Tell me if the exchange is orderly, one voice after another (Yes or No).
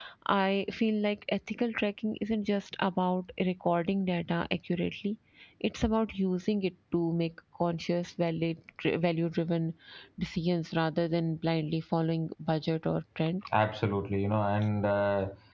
Yes